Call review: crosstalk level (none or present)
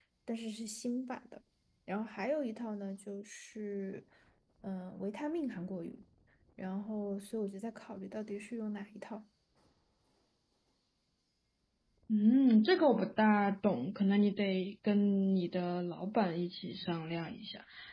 none